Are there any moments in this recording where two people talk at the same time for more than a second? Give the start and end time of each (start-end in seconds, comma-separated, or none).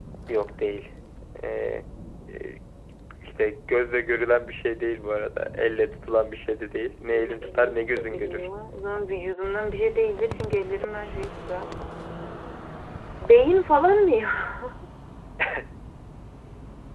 7.1-8.5